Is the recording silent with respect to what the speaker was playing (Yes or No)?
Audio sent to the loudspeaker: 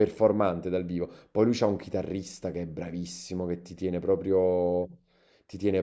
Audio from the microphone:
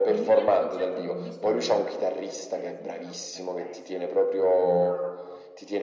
No